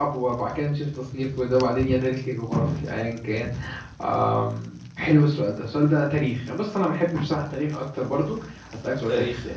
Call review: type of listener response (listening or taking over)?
listening